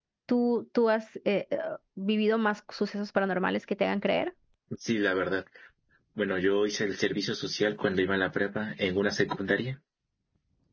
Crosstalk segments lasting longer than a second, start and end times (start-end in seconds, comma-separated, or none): none